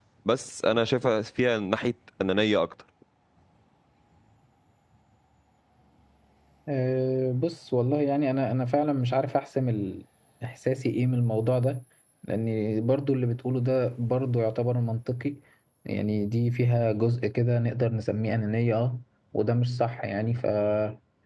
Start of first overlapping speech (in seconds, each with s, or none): none